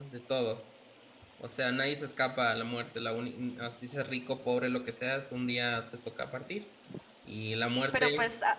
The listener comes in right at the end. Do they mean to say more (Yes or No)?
Yes